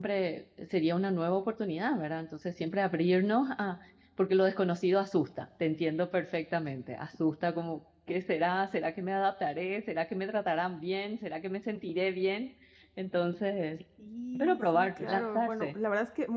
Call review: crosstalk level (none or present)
present